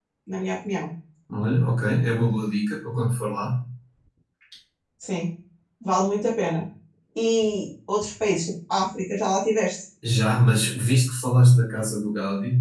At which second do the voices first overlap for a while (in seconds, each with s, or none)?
none